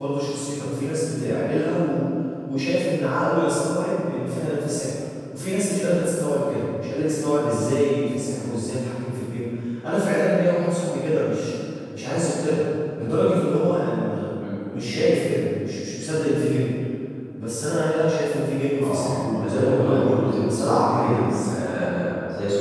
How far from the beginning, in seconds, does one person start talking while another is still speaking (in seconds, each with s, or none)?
18.8 s